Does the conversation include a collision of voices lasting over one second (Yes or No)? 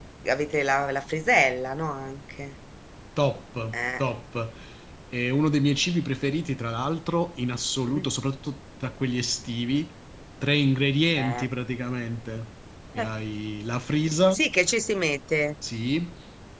No